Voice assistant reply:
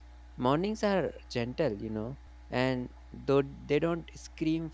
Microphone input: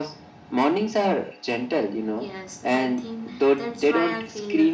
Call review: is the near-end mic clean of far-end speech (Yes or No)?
No